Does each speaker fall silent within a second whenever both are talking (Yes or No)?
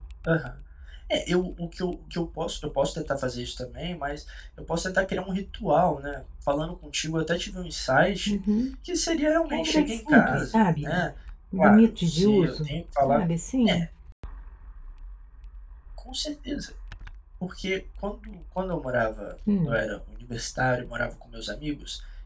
No